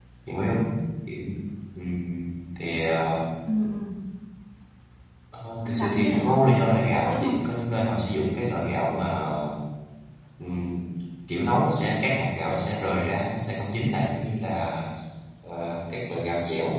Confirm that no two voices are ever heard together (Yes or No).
No